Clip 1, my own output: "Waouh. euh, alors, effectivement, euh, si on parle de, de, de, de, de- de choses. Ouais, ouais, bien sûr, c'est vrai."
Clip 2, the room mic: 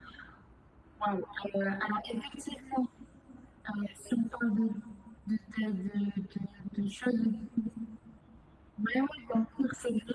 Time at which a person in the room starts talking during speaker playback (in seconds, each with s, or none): none